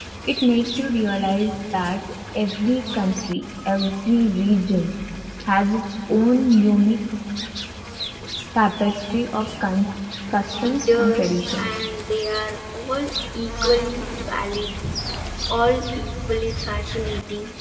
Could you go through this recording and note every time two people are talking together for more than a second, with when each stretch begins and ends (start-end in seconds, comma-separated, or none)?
10.6-11.9